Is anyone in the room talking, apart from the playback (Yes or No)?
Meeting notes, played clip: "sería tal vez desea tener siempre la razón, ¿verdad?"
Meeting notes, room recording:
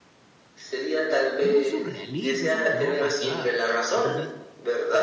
Yes